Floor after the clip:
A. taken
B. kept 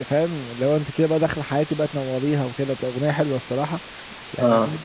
B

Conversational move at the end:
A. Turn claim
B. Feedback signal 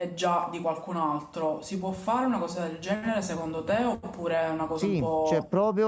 A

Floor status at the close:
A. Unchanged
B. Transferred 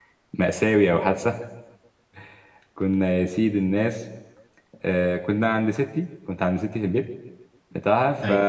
A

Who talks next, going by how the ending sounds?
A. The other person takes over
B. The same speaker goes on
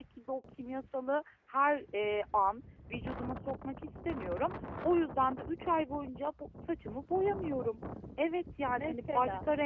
B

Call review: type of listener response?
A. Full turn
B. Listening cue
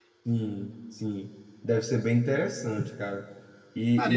B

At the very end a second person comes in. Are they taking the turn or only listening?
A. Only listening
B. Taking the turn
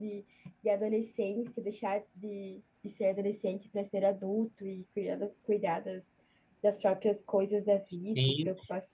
B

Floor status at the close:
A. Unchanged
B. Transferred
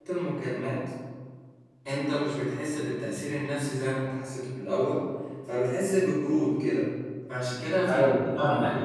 A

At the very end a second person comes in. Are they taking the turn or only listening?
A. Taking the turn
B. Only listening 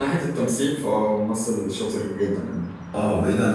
A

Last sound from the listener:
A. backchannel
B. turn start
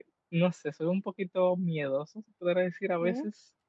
A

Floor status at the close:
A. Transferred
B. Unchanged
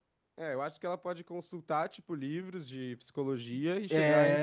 B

